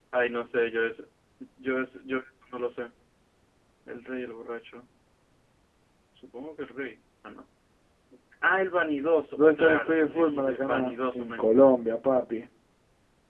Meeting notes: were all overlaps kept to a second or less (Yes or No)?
No